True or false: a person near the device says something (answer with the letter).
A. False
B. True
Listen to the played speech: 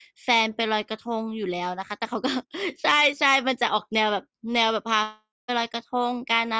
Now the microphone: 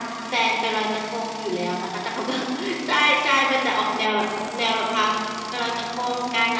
A